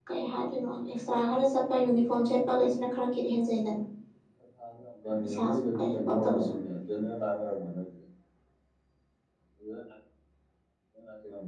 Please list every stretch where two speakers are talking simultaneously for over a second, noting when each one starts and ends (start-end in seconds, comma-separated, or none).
5.2-6.5